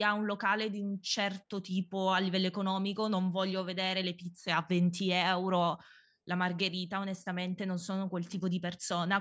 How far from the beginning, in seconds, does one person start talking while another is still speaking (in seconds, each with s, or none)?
none